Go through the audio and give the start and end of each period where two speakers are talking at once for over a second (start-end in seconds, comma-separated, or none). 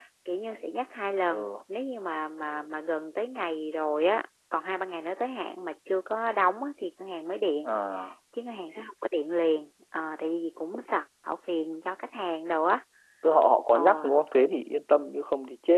none